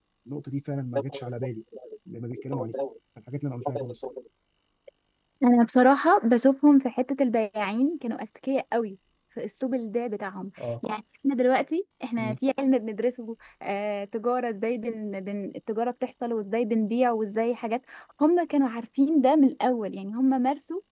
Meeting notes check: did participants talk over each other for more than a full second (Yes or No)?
No